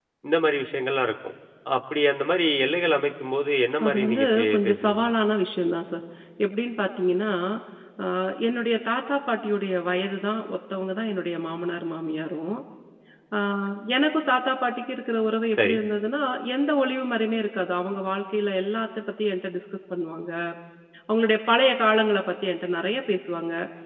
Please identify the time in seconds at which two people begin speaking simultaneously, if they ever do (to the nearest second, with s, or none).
4 s